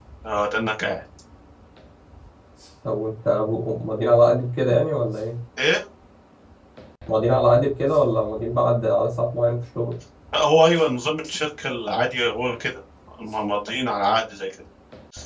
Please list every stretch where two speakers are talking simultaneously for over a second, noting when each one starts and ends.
none

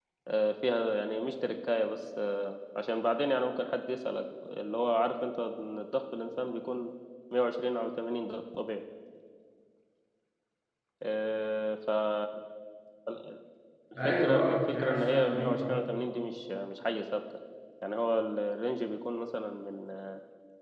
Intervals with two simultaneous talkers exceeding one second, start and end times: 14.1-15.8

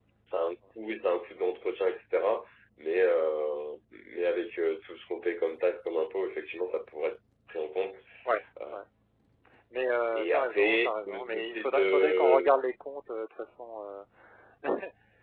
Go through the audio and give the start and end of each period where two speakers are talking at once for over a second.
10.1-12.5

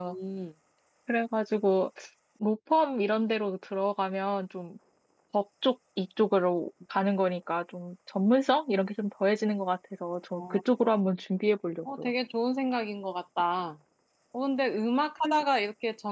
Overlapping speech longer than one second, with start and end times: none

